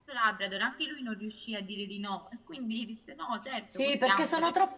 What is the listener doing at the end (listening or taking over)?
taking over